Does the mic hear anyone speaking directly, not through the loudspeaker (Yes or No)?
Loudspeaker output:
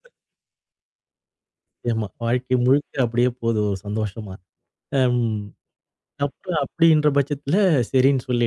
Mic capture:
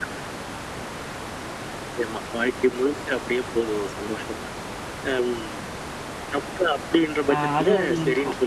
Yes